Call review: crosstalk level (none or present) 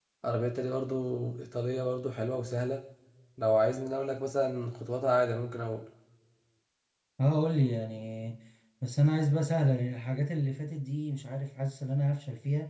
none